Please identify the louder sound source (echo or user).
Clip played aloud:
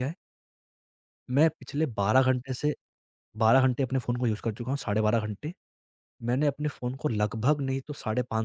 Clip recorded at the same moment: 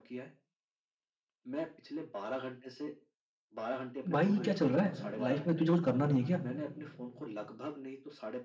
user